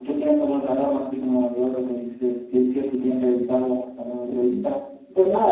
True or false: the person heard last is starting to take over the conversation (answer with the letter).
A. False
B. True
B